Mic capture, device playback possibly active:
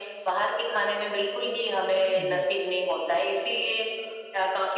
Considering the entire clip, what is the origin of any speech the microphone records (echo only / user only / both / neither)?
both